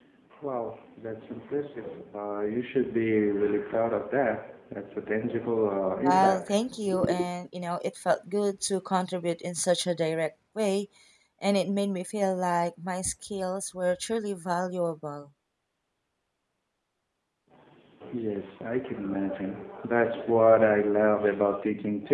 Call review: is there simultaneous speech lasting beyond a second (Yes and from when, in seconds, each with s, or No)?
No